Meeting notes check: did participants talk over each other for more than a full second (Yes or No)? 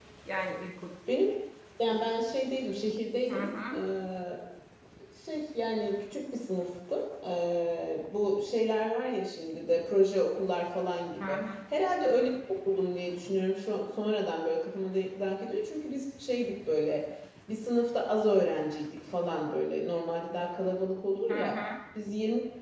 No